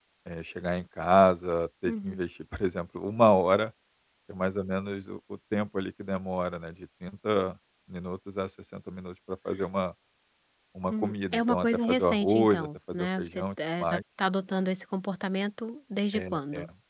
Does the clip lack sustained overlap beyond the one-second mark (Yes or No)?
No